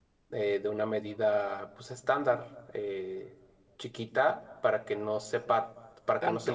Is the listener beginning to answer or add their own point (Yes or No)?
No